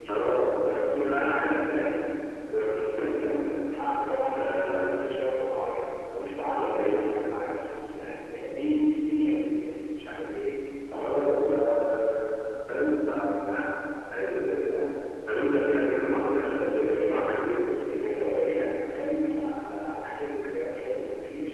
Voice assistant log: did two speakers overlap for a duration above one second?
Yes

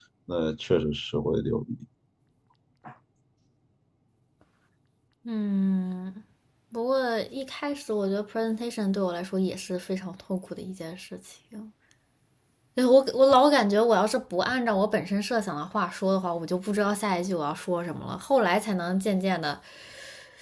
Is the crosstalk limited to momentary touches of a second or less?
Yes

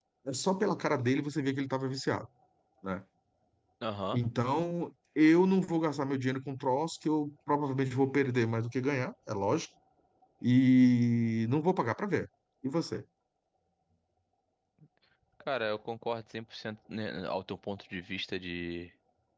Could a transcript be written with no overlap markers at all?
Yes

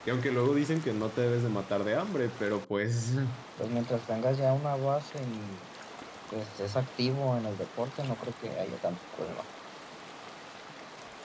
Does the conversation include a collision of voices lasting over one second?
No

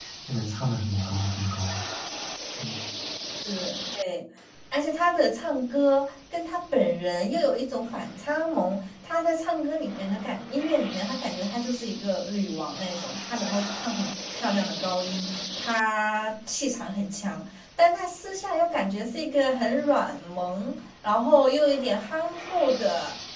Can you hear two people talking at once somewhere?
No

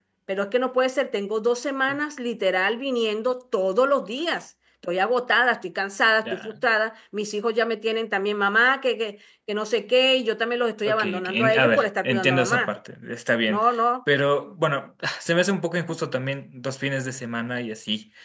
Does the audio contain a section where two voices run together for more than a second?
Yes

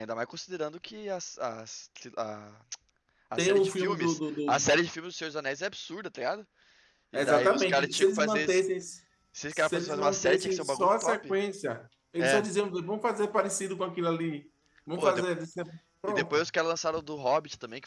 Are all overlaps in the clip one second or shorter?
No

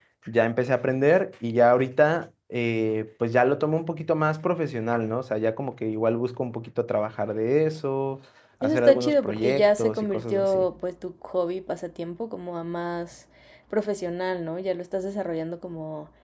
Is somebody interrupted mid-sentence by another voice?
Yes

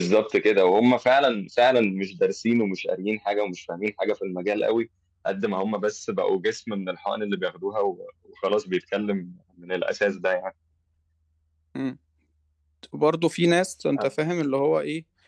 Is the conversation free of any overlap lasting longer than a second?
Yes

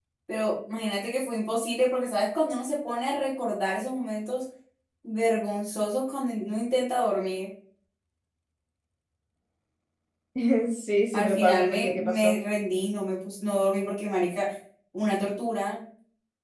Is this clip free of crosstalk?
No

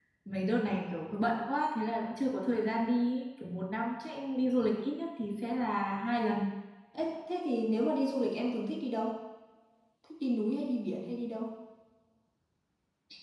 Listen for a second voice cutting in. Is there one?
No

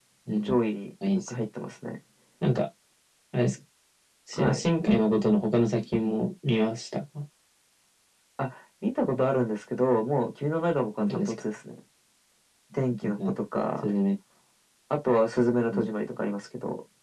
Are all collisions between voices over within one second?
Yes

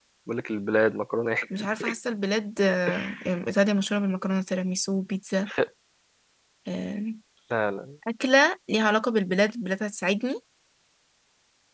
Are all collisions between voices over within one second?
Yes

